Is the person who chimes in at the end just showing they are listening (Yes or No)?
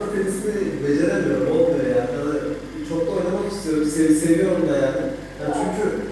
Yes